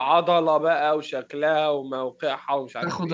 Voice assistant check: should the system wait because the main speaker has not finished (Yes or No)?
No